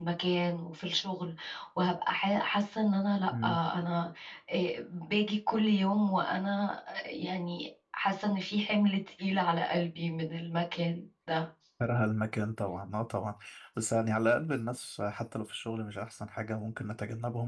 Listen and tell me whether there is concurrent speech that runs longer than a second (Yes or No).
No